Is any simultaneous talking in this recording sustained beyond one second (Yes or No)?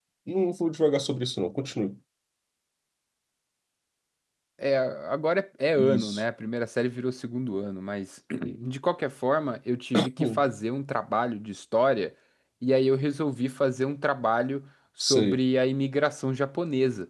No